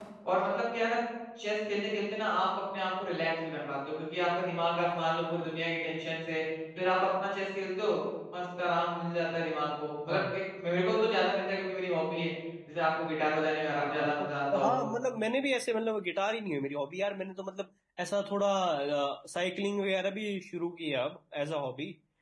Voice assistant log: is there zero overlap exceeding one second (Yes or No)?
Yes